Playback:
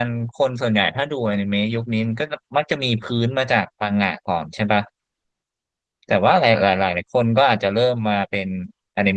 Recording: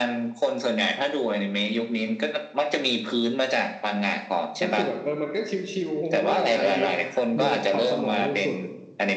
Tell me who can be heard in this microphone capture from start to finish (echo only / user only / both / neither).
both